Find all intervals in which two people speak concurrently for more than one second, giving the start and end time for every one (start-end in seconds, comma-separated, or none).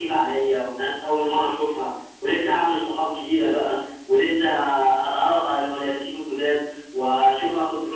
none